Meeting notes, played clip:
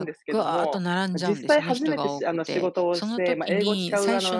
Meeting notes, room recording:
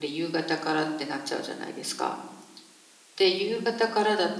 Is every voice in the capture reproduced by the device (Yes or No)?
No